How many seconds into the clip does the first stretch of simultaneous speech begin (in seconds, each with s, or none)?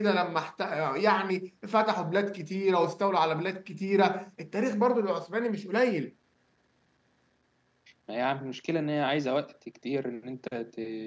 none